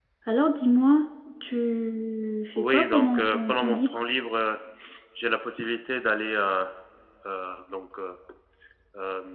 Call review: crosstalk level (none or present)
present